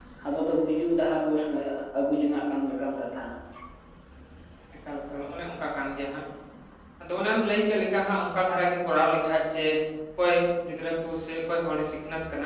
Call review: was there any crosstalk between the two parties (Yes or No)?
No